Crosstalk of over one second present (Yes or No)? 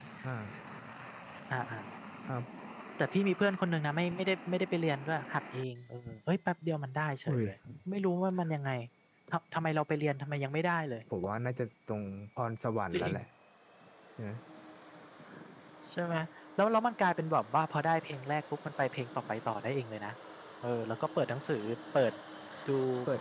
No